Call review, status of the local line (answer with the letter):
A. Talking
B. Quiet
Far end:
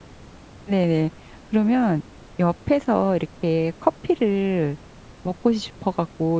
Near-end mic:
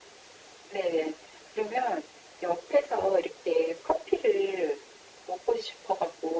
B